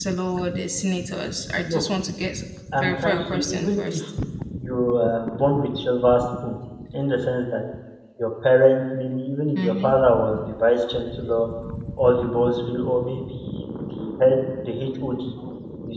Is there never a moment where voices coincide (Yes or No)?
No